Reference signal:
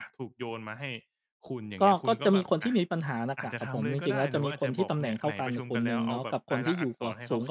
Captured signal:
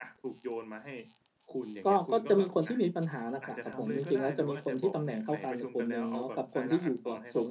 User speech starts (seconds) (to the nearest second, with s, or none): none